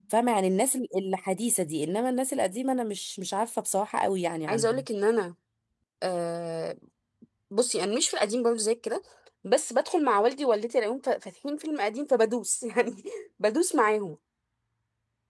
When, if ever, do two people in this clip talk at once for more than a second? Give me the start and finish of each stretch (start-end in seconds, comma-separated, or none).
none